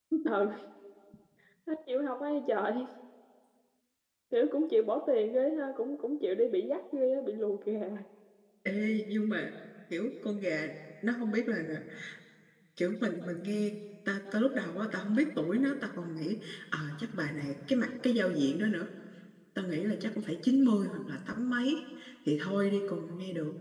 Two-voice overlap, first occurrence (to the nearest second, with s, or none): none